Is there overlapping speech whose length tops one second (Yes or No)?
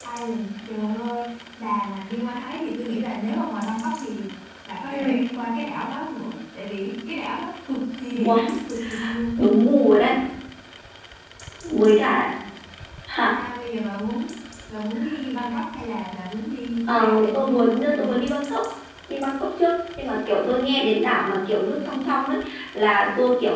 Yes